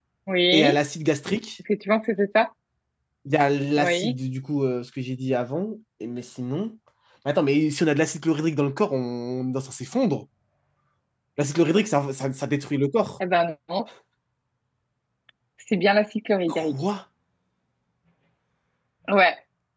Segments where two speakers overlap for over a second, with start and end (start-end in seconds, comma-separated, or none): none